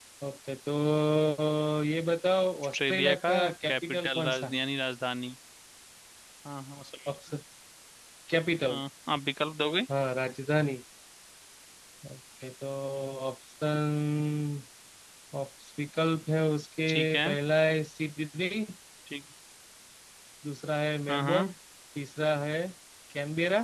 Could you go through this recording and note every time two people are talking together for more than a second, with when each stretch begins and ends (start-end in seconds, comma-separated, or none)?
2.7-4.5